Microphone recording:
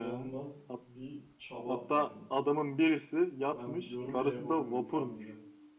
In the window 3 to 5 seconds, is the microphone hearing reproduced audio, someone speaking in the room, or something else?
both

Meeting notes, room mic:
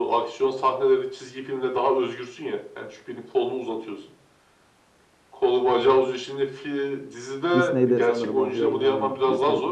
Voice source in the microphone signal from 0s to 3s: echo only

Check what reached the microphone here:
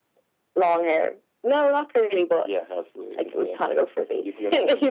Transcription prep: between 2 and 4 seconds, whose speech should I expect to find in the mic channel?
echo only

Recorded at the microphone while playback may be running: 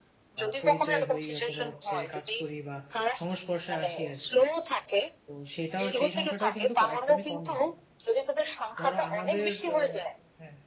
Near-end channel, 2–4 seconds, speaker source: both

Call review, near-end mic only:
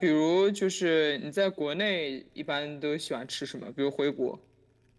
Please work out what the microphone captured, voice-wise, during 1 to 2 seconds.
echo only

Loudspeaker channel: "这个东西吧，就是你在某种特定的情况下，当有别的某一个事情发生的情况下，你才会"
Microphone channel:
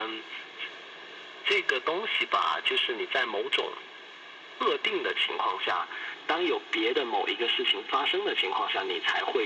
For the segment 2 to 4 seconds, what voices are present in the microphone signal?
echo only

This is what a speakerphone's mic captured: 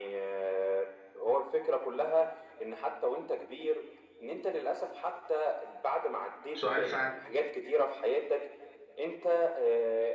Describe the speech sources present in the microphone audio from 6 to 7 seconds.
both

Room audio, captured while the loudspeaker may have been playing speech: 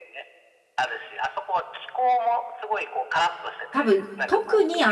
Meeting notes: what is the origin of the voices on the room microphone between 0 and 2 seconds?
echo only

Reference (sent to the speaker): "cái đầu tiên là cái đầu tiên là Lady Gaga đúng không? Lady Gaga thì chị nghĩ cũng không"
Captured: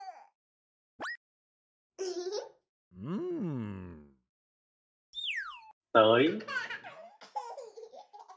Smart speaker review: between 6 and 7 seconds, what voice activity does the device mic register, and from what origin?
user only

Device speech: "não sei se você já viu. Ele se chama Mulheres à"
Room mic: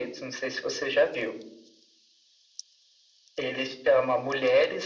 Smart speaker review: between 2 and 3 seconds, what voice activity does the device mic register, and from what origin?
neither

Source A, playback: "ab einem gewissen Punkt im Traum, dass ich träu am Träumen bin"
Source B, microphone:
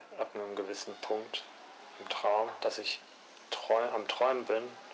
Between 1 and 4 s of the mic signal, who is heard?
echo only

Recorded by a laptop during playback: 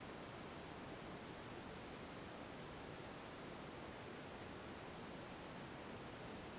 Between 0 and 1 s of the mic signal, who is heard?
neither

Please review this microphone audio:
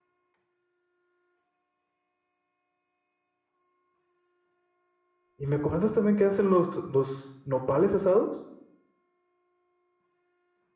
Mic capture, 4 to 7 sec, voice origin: user only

